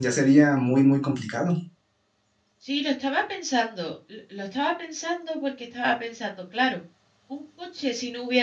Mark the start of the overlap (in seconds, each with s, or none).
none